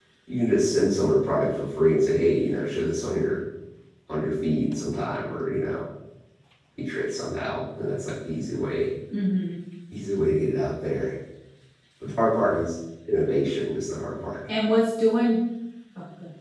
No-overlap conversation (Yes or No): Yes